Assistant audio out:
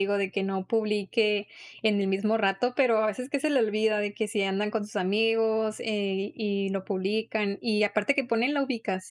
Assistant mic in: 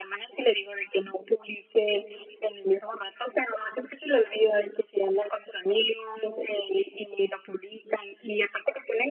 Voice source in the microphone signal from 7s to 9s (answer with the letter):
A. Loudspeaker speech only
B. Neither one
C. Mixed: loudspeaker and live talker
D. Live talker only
A